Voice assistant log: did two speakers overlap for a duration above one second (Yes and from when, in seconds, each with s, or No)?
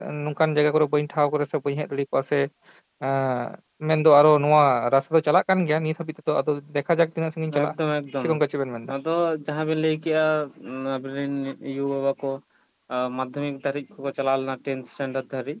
No